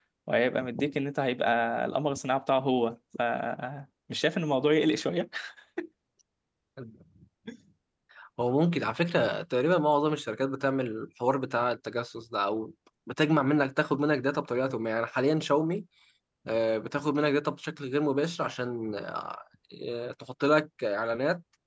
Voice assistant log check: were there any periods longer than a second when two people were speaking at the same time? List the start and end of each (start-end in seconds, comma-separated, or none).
none